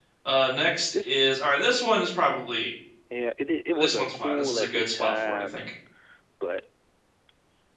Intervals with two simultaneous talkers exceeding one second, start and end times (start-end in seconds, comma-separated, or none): 3.7-5.7